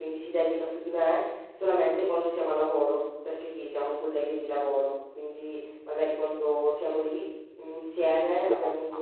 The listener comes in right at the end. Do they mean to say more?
No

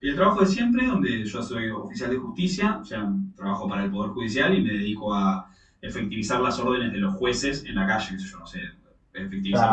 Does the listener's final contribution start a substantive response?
No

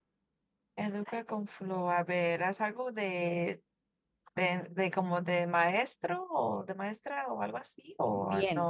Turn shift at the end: Yes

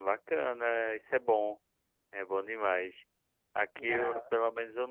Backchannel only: Yes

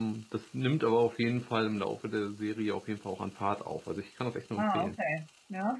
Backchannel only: No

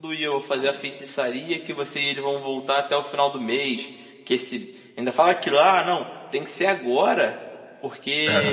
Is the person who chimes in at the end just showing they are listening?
Yes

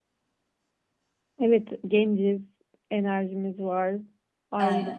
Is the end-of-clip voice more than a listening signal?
No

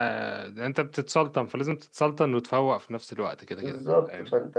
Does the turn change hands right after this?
Yes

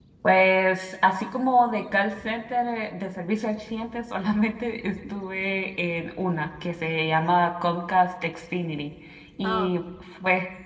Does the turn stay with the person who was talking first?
Yes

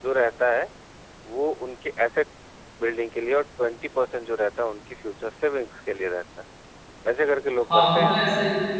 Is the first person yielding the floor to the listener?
Yes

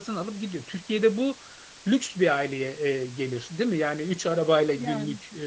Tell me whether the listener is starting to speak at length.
No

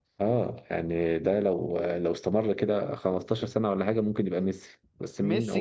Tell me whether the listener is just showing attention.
No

